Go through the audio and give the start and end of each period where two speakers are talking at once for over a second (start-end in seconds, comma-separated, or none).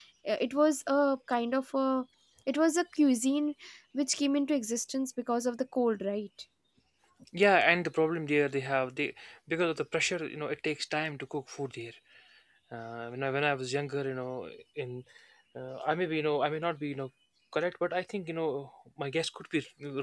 none